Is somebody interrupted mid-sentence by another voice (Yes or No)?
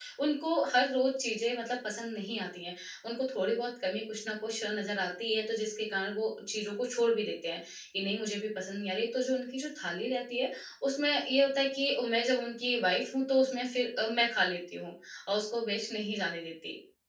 No